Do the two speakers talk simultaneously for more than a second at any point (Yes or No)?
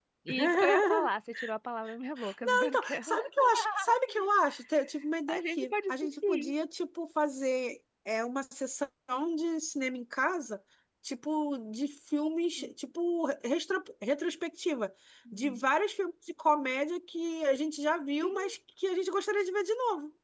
Yes